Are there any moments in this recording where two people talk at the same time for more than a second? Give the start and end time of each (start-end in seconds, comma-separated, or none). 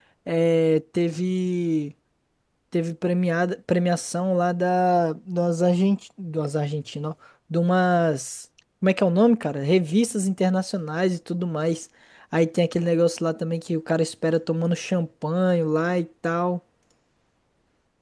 none